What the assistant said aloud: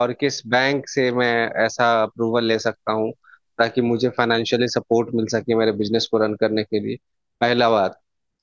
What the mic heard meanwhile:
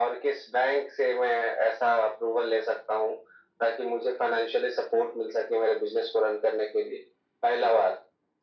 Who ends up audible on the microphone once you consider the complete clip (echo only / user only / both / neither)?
echo only